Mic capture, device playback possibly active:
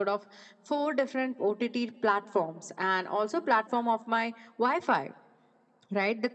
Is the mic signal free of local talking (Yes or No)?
Yes